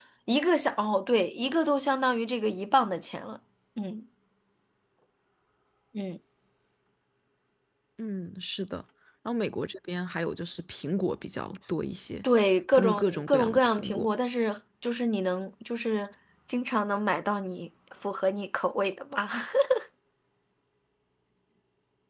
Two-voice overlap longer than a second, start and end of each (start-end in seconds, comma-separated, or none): 12.7-14.1